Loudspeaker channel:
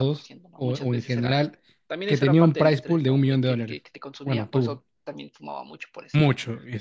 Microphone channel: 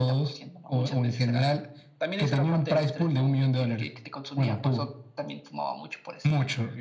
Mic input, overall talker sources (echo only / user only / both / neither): echo only